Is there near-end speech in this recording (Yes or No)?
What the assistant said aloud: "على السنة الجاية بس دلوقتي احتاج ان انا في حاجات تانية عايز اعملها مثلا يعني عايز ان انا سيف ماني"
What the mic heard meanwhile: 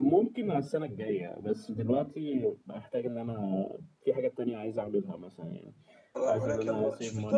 Yes